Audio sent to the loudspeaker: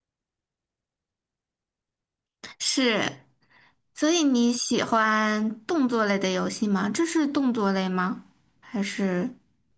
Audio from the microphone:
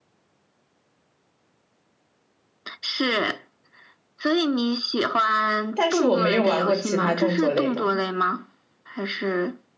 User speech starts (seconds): 5.7 s

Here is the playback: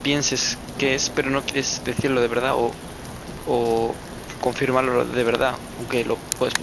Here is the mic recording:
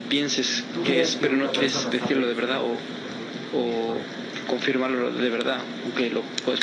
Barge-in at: 0.7 s

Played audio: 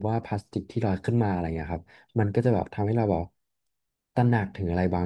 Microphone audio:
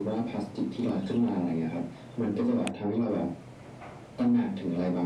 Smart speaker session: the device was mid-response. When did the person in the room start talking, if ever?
none

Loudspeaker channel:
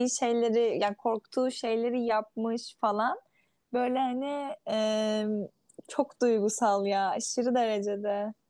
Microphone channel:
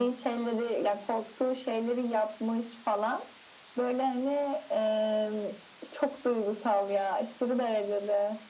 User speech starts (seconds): none

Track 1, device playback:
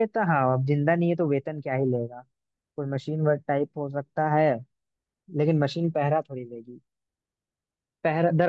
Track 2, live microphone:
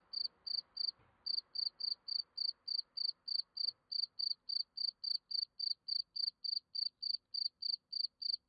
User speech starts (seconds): none

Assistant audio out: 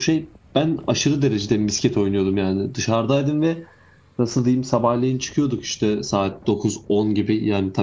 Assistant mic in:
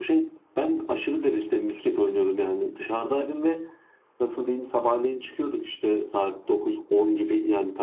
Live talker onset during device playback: none

